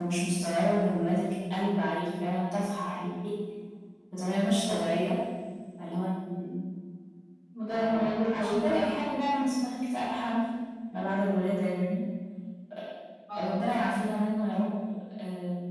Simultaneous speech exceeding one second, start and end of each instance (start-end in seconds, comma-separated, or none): 7.7-8.9